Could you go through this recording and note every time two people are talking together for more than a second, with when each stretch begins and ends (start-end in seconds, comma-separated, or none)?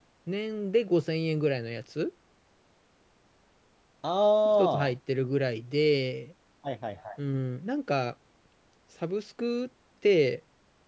none